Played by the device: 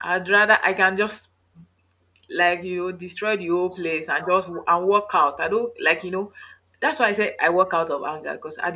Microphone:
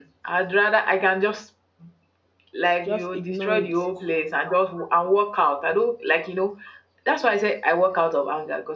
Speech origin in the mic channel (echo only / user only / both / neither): both